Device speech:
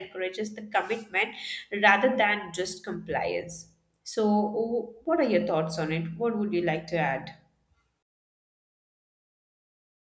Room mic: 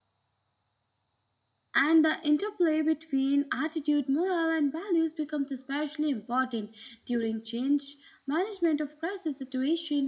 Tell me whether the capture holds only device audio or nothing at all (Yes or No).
No